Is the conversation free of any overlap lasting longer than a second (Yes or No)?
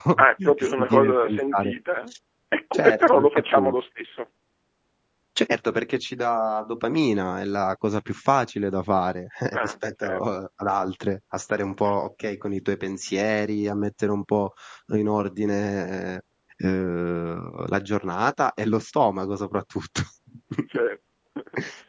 No